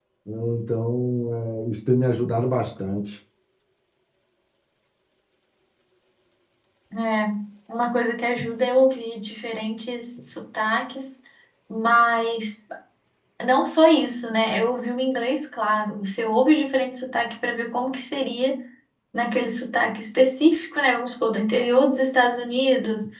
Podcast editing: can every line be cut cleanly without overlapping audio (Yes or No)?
Yes